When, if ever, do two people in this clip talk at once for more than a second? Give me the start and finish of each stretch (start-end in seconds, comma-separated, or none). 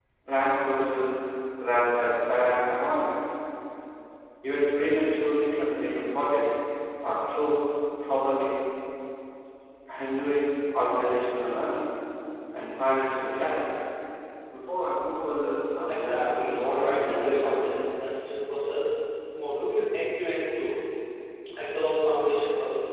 16.0-17.8